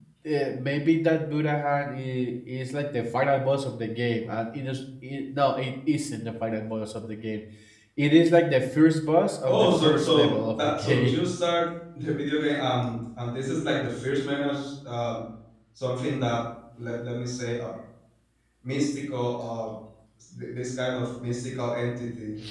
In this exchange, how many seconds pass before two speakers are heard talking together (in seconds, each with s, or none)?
9.5 s